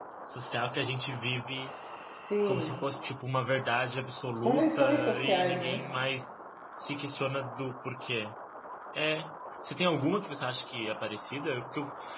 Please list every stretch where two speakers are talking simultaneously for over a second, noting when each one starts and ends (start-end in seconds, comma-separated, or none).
4.3-5.8